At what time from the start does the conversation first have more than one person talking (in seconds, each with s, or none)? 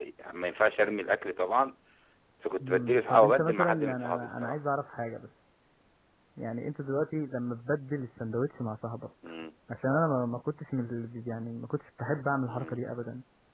2.6 s